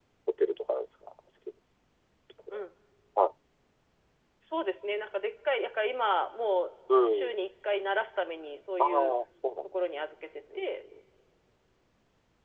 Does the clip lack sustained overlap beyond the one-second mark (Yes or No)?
Yes